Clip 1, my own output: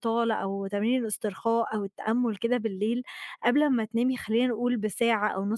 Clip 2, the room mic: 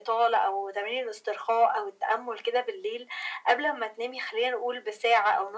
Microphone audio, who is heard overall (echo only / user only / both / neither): echo only